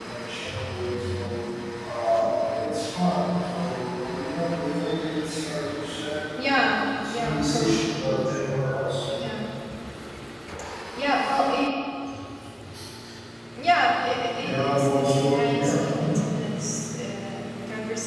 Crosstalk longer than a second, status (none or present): present